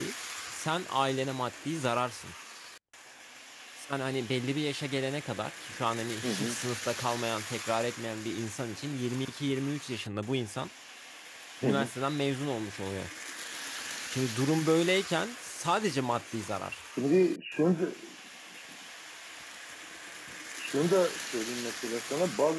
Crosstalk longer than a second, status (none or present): none